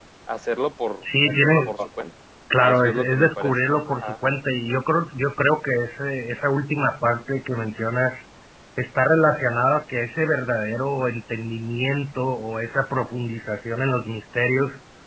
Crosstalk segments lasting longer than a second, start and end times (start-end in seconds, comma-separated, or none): 2.6-4.1